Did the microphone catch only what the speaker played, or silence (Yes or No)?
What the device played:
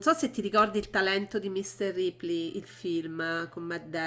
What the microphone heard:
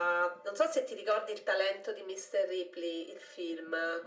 Yes